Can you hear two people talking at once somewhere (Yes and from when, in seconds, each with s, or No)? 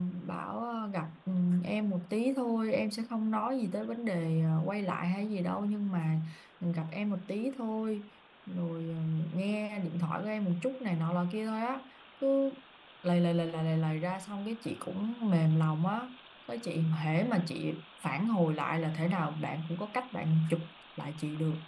No